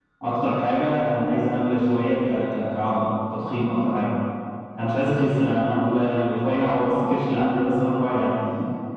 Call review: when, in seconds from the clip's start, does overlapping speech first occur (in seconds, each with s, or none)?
none